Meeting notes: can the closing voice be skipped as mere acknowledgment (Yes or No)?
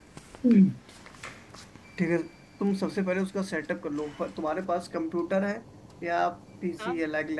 Yes